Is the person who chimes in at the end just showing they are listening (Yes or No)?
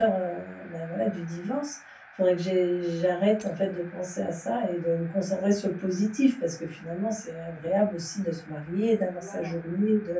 Yes